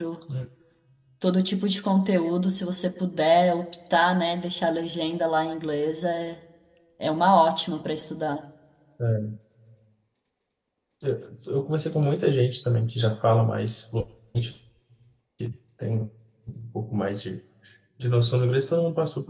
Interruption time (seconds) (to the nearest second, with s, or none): none